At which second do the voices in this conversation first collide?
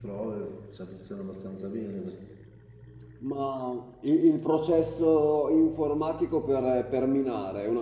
none

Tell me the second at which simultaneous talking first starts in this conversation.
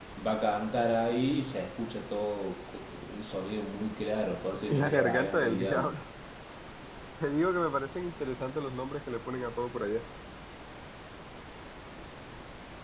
4.7 s

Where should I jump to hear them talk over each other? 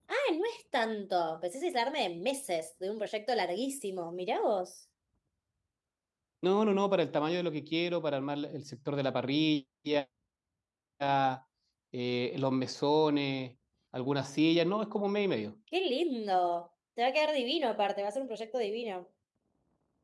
none

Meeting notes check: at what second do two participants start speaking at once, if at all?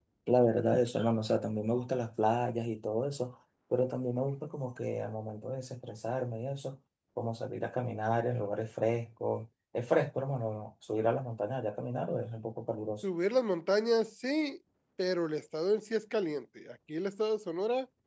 none

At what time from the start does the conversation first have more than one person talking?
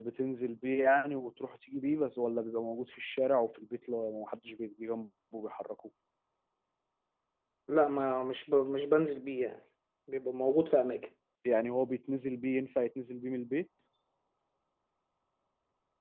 none

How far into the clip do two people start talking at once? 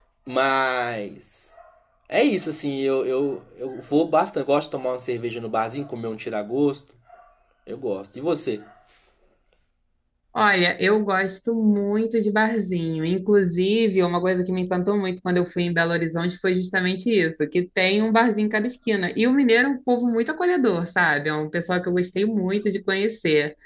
none

